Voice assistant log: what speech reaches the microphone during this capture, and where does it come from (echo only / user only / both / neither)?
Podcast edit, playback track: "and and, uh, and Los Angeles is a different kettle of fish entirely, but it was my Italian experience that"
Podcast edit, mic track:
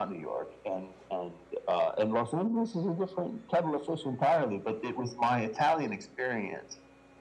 echo only